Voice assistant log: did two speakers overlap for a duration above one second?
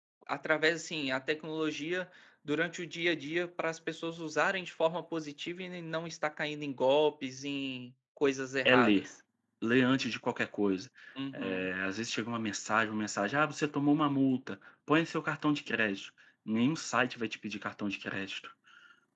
No

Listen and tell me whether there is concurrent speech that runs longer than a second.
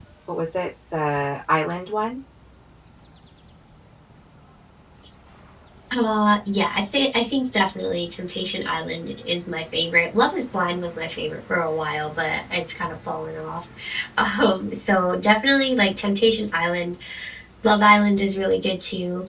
No

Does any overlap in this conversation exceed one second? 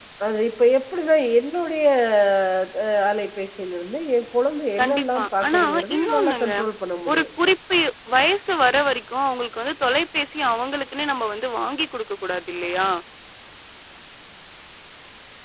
Yes, from 4.8 s

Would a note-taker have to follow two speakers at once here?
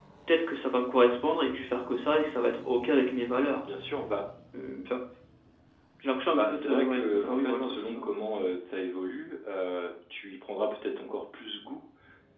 Yes, from 6.3 s

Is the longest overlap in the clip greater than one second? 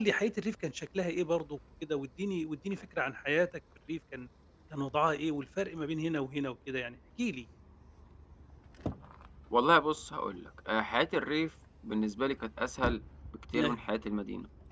No

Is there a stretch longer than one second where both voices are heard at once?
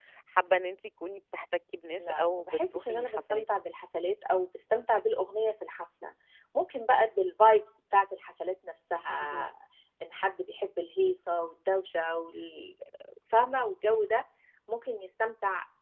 Yes, from 2.0 s

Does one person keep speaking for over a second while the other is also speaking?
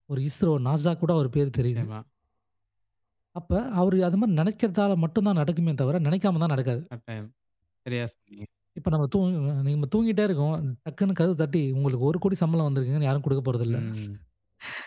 No

